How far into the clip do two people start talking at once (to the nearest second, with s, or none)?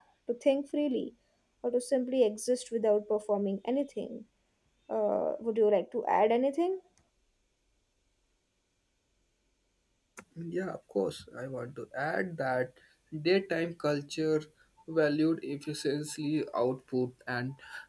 none